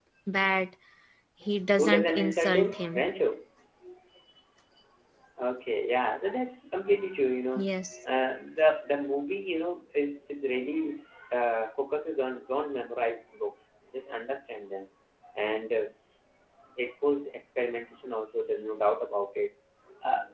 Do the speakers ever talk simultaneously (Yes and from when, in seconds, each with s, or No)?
Yes, from 1.8 s